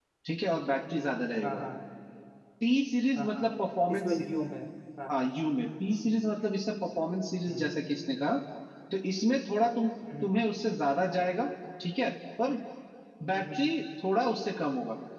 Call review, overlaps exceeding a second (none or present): none